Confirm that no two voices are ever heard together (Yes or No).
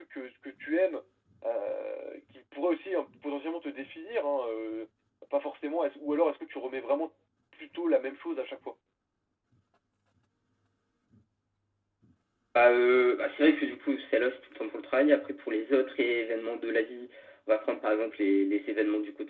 Yes